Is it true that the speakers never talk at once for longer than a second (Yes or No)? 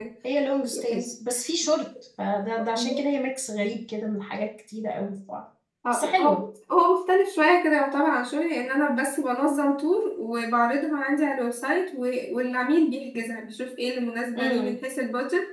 Yes